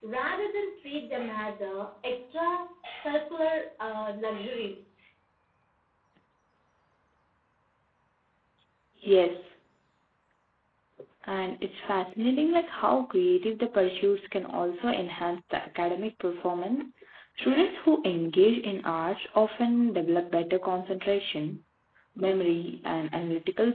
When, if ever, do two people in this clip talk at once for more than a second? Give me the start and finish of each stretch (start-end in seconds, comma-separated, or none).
none